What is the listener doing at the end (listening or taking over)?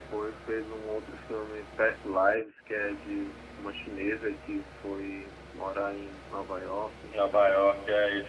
taking over